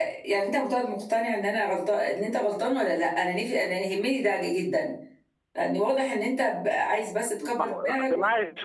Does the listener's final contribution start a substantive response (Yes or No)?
Yes